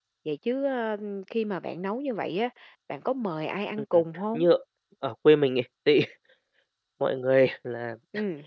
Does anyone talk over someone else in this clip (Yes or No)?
No